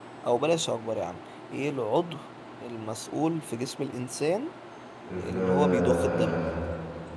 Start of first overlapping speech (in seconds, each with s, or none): 5.2 s